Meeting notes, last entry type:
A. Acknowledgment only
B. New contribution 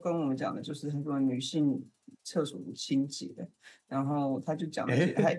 A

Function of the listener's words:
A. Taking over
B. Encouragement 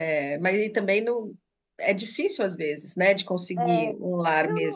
A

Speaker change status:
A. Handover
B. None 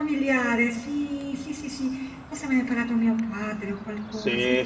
A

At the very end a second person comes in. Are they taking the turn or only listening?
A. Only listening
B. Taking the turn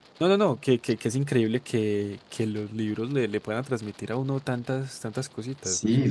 B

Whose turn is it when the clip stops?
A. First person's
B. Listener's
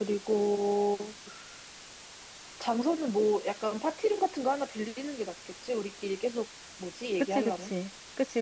B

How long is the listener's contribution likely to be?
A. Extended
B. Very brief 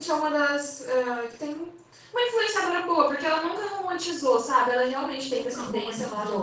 A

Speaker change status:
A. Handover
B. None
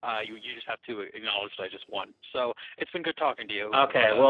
A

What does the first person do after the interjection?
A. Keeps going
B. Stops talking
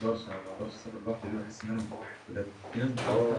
B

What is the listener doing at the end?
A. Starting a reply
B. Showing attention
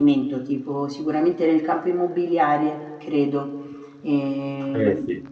A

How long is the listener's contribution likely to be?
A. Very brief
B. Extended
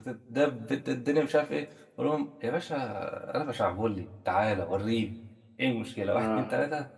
A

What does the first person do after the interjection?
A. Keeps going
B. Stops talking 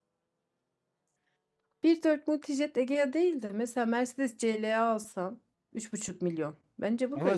B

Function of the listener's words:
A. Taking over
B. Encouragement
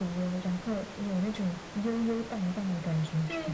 A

